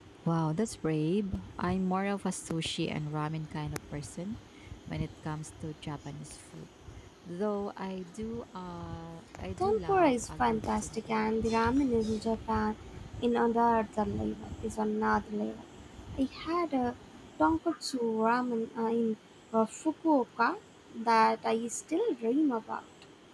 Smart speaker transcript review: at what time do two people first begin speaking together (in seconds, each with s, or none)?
9.6 s